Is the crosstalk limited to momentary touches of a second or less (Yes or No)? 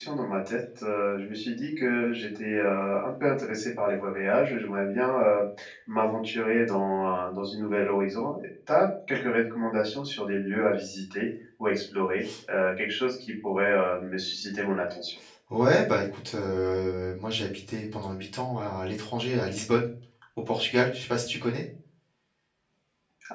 Yes